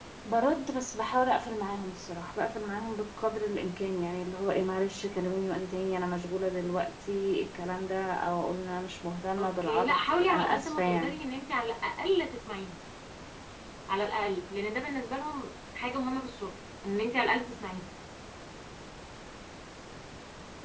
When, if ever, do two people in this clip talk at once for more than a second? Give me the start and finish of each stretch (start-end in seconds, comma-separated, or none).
9.4-11.2